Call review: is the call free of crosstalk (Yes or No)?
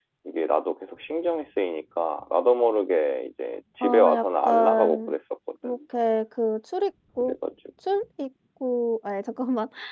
No